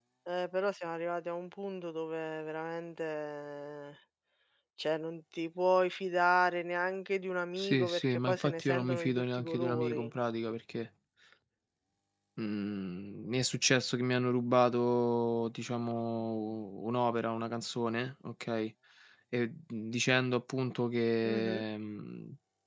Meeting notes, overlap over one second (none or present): present